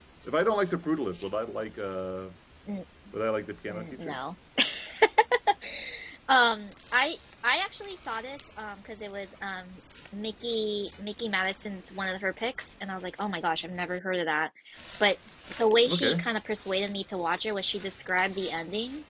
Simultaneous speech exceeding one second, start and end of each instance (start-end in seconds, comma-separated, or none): none